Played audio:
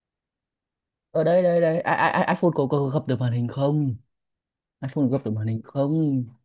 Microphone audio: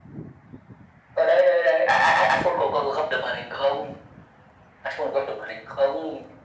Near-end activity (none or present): none